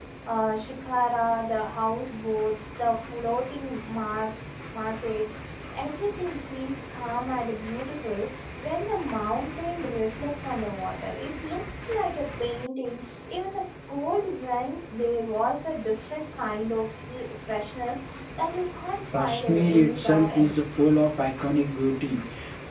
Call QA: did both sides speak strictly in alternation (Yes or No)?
No